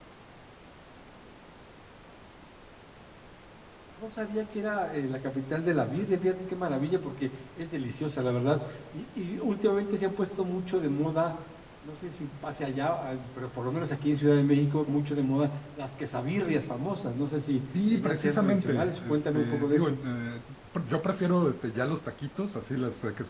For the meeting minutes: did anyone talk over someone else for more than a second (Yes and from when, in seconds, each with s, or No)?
Yes, from 17.7 s